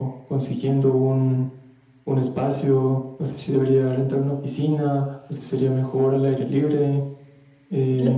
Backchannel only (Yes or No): No